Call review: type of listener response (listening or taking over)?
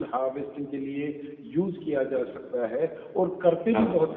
listening